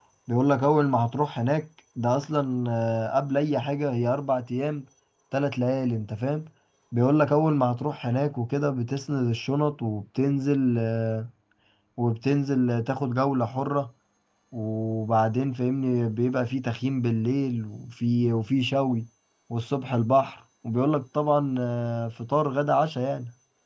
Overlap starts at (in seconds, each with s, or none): none